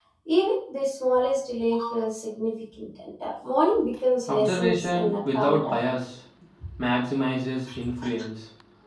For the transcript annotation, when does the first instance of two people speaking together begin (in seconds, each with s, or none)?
4.3 s